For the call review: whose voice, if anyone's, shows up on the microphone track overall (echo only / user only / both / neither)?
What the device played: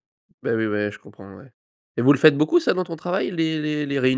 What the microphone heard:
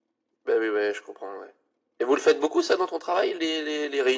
echo only